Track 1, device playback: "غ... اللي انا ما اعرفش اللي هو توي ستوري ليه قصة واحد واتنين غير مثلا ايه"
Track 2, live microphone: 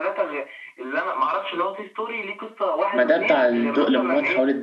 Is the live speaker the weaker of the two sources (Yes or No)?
No